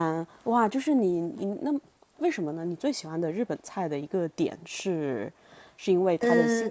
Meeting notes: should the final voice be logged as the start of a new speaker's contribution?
No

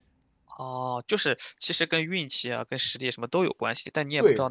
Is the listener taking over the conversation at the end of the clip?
Yes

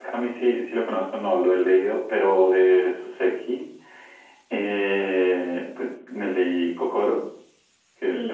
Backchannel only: No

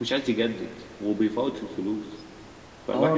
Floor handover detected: Yes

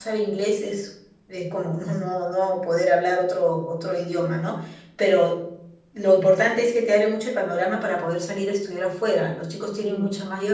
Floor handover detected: No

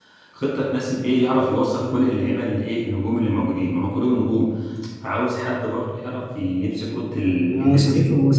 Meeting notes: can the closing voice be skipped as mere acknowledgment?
No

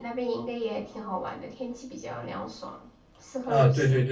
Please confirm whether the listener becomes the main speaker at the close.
Yes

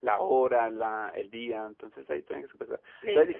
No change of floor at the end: Yes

